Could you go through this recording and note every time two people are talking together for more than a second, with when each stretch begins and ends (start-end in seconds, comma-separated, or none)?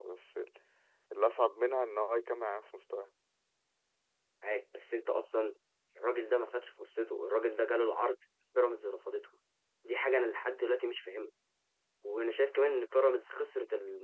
none